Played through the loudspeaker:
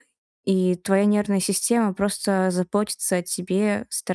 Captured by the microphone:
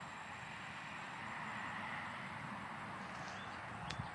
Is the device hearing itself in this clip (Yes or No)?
No